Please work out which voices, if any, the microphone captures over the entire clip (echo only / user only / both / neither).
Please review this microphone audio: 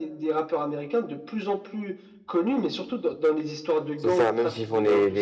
both